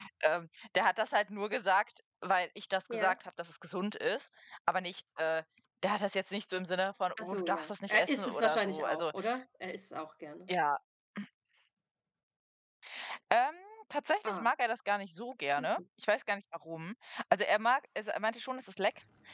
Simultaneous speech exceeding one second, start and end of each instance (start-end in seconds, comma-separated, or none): 7.2-9.1